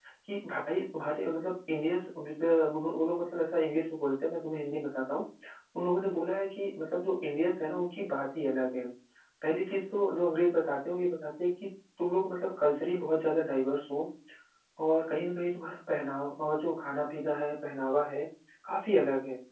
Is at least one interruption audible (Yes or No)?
No